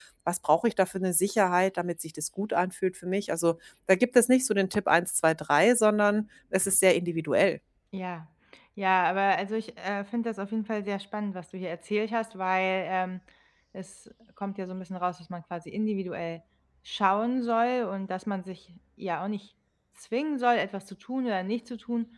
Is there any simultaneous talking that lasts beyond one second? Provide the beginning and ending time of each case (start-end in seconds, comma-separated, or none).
none